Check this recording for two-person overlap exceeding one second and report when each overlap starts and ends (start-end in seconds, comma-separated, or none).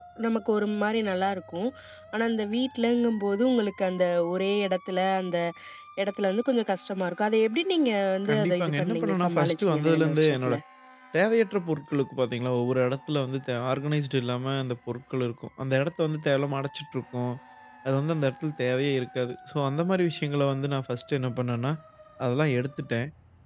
8.3-10.5